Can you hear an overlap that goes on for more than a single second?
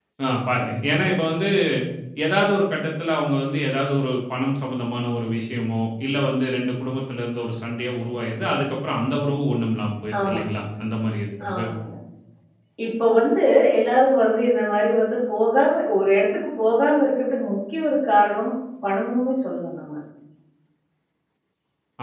No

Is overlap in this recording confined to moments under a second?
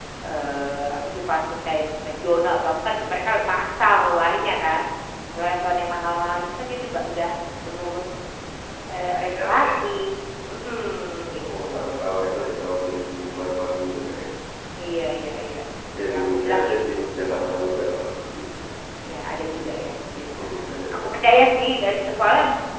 No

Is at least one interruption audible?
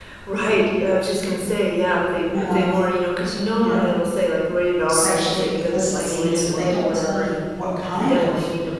Yes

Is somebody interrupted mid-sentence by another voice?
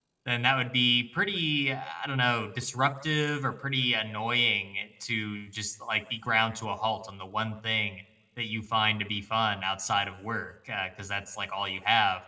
No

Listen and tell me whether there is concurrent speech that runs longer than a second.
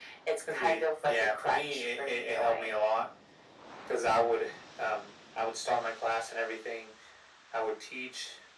Yes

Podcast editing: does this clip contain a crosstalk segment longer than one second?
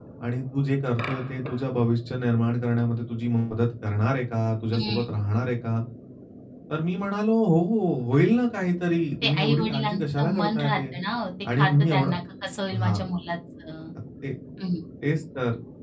Yes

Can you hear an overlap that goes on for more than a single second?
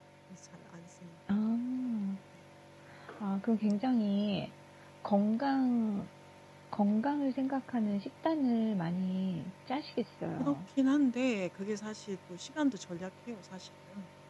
No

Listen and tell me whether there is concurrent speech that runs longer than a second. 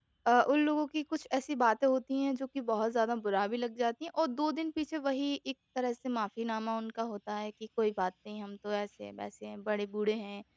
No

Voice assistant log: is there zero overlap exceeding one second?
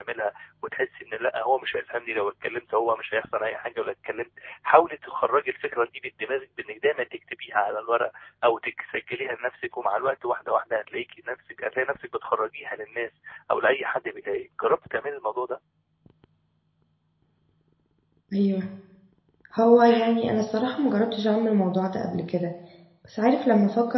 Yes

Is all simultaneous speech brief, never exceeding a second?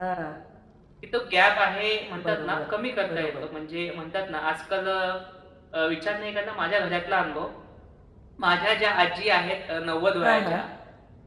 Yes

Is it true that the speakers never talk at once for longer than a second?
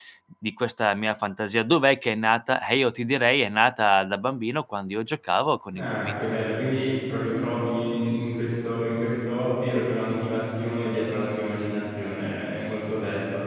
Yes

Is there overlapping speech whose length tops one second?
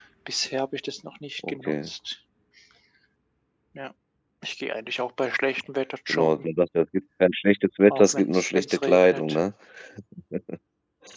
Yes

